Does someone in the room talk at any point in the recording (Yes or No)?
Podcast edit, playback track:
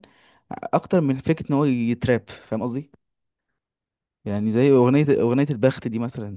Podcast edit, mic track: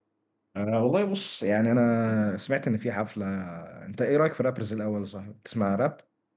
Yes